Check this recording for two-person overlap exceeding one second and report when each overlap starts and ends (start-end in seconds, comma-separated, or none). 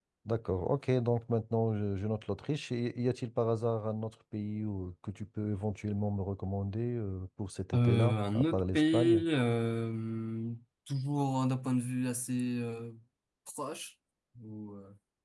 7.7-9.2